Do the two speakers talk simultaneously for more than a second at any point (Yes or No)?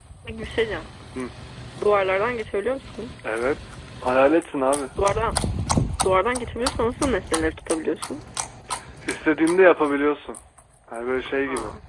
No